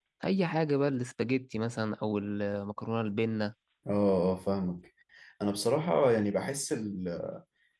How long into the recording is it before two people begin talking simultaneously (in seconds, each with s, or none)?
none